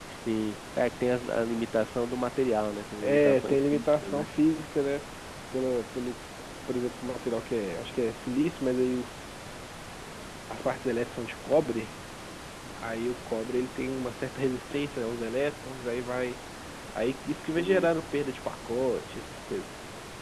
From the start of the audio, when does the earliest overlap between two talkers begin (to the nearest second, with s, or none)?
3 s